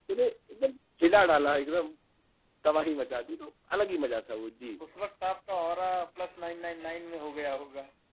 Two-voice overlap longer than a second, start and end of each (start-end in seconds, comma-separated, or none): none